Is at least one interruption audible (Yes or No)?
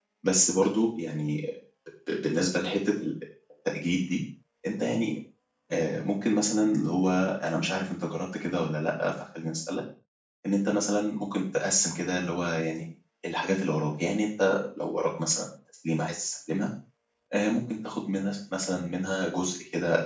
No